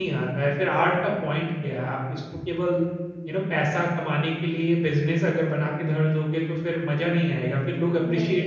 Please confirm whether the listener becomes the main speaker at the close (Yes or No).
No